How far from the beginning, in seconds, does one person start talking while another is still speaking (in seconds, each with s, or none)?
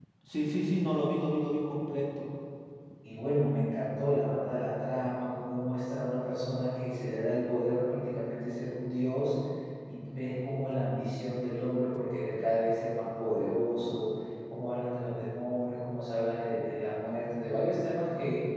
none